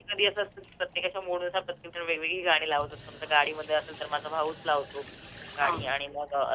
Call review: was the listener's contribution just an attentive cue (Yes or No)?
Yes